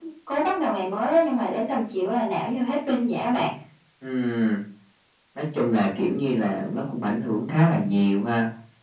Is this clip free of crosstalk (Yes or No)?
Yes